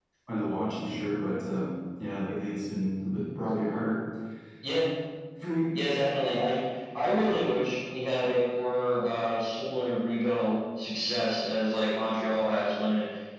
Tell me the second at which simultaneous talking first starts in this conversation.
none

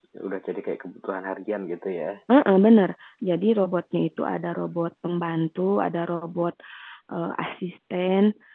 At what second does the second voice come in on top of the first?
none

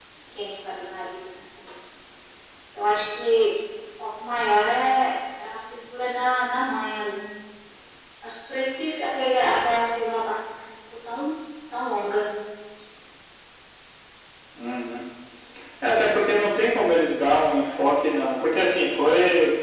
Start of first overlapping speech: none

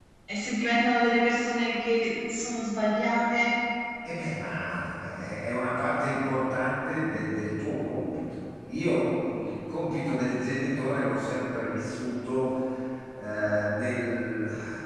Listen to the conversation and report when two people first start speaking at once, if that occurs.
none

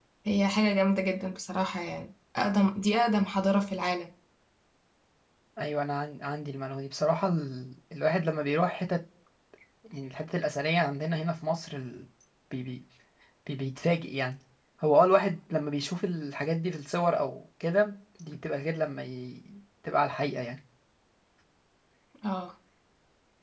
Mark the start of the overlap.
none

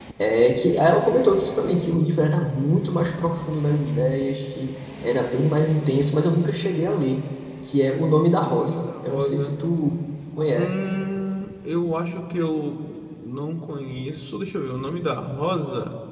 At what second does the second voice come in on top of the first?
8 s

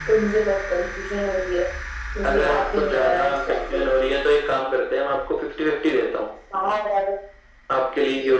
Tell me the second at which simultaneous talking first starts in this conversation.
2 s

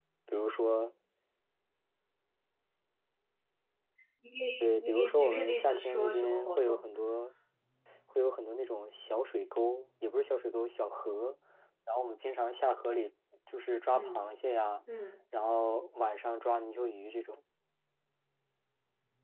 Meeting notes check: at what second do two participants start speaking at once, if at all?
5 s

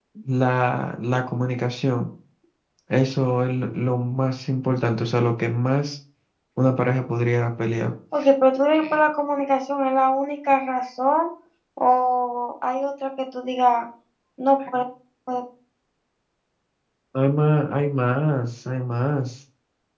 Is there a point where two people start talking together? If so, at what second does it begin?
none

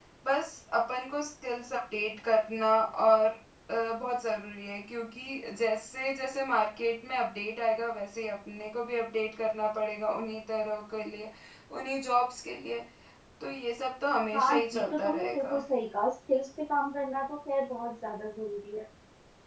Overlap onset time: 14 s

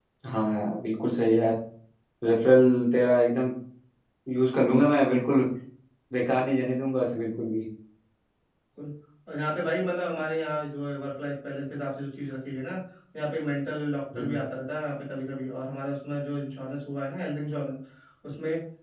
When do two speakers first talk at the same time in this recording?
none

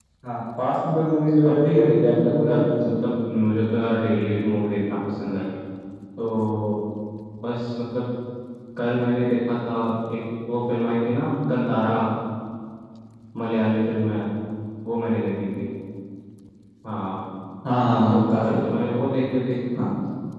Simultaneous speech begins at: 1 s

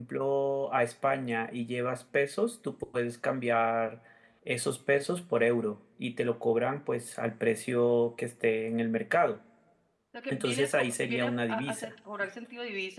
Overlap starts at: 10 s

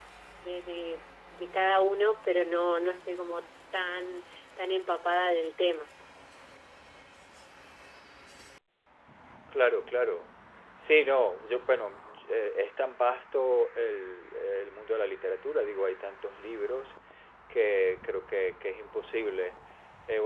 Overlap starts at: none

